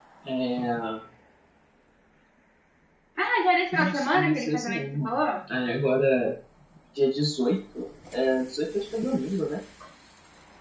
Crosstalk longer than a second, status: present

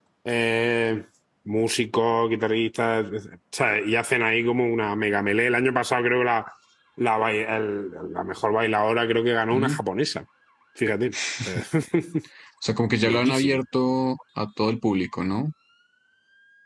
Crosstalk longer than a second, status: none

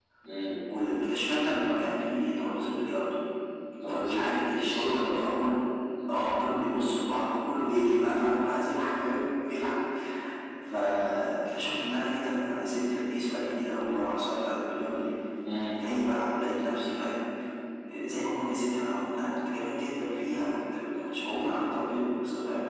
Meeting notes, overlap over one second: present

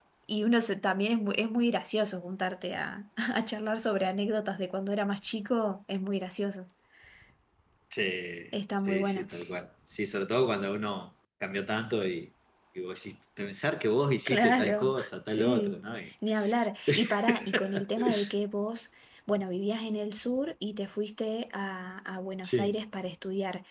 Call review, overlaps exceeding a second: present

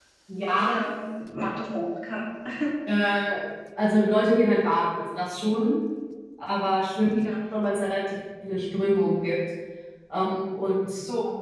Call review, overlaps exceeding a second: none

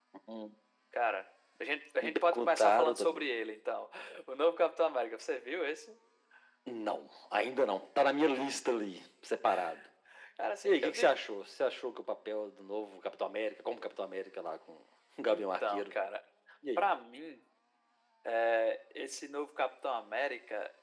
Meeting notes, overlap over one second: present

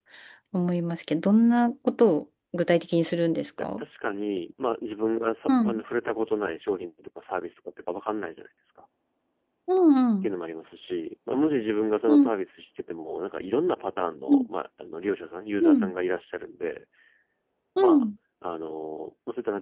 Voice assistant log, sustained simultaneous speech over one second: none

